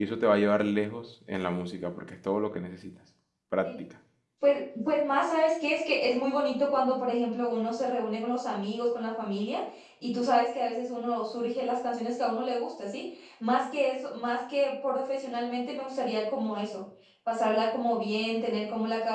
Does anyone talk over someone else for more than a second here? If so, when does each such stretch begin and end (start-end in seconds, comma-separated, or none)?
none